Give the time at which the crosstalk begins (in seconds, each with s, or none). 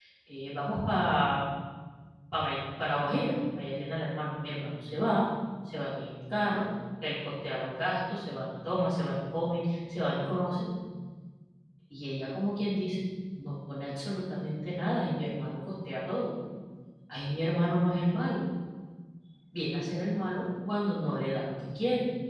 none